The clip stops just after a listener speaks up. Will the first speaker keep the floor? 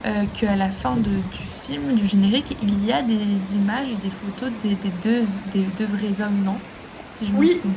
No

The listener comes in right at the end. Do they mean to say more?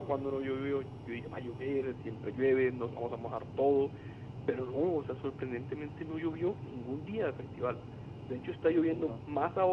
No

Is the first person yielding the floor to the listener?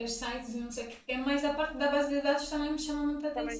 Yes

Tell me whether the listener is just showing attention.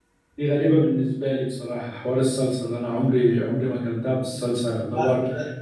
Yes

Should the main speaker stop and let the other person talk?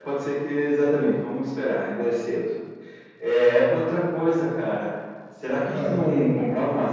No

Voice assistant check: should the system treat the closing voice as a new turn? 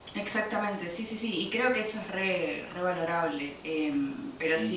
No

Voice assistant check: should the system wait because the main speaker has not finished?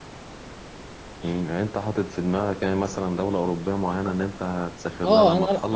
No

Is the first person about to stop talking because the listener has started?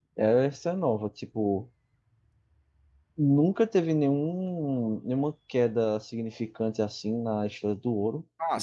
Yes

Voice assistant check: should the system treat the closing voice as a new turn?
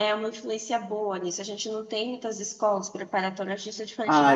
Yes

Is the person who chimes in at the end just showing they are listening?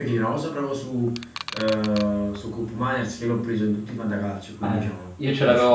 No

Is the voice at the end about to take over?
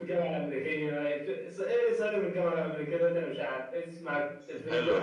Yes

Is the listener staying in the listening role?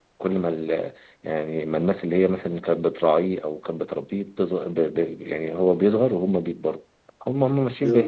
Yes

